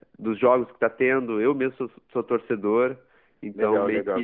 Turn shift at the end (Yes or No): Yes